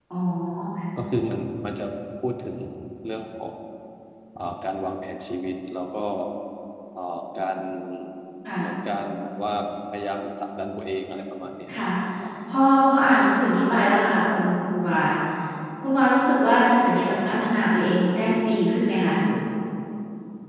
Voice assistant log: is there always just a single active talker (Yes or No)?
Yes